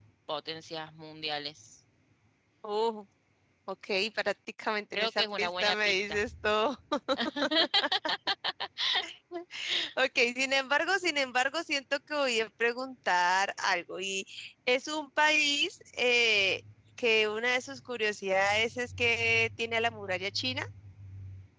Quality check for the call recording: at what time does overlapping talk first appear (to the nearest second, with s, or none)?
5 s